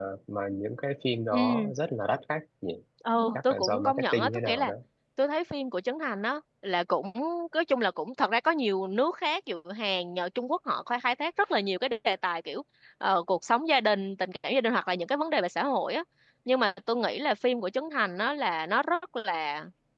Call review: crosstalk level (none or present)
present